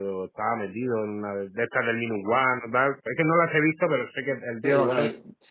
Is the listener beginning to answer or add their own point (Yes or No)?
Yes